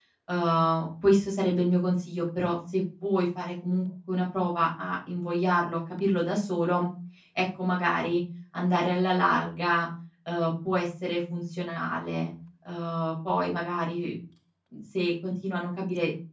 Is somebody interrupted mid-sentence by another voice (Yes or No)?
No